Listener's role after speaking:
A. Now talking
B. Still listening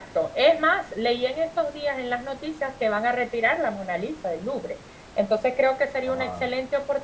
B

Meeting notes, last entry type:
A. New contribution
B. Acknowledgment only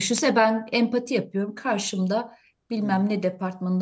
B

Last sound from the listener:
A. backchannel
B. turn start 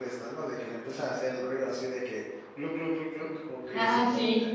A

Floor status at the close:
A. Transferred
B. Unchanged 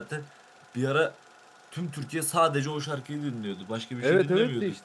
A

